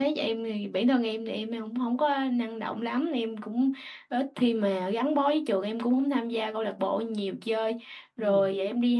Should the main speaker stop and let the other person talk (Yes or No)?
No